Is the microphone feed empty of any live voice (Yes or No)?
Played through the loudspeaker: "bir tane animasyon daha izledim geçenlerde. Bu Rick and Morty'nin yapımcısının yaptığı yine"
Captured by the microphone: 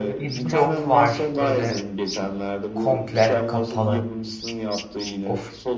No